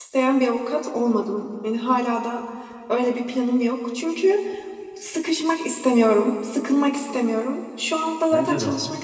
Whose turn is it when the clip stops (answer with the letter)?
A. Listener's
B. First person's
B